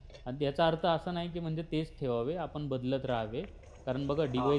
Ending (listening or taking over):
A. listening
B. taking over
A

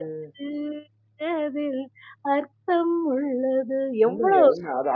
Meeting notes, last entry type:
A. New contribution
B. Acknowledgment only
A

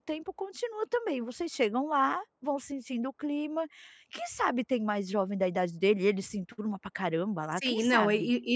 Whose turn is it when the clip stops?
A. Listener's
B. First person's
A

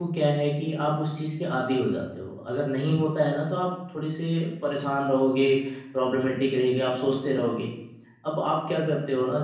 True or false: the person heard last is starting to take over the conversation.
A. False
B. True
A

